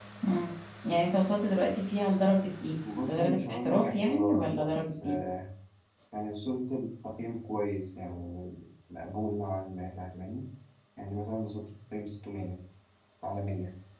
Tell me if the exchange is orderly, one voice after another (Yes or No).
No